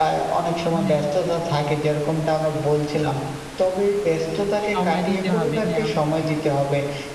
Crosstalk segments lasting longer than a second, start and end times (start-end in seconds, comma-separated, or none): 4.7-6.0